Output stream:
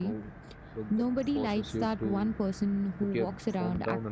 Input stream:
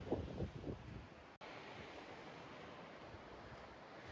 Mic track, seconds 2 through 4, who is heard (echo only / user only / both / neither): neither